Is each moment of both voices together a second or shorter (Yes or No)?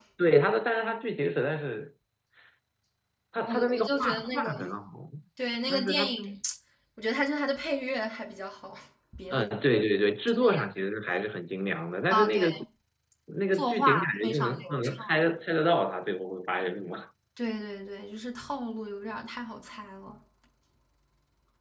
No